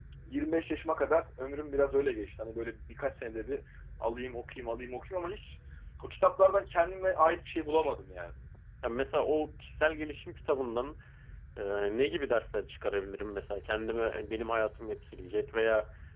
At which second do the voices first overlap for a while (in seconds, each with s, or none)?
none